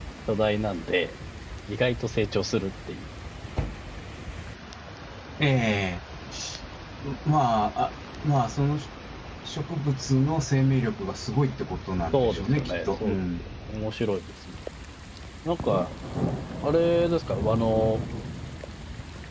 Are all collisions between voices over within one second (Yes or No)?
No